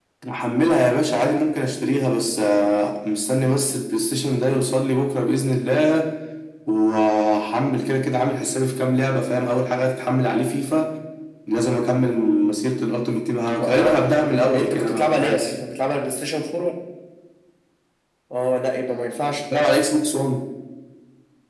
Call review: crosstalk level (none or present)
present